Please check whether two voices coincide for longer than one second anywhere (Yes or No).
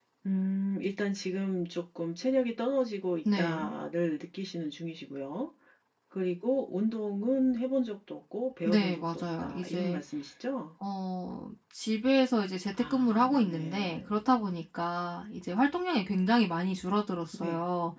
Yes